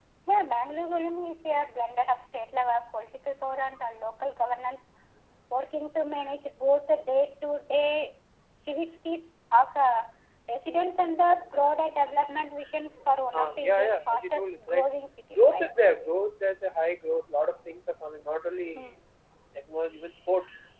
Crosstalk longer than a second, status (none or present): present